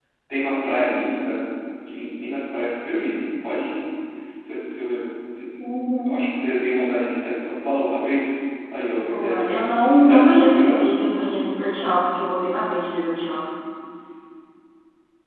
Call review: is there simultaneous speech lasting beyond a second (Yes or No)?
Yes